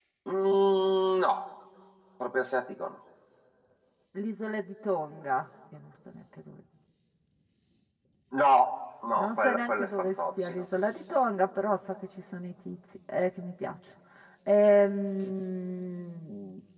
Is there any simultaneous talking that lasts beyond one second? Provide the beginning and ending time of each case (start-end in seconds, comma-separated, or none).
9.2-10.7